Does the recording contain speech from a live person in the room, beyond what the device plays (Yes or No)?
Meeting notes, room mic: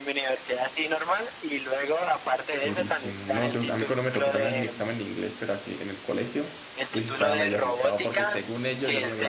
Yes